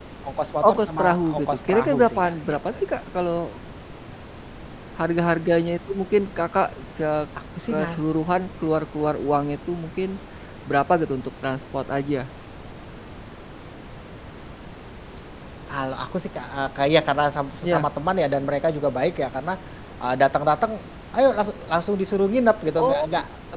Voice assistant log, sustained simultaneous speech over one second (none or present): present